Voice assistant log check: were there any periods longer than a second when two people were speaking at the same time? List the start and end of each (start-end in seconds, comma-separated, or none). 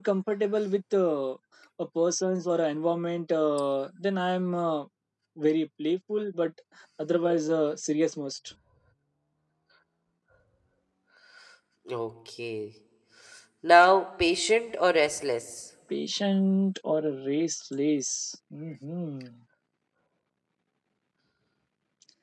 none